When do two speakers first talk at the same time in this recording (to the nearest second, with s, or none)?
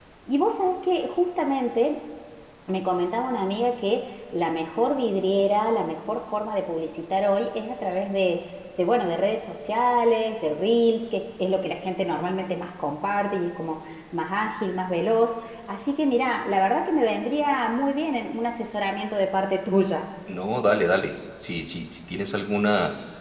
none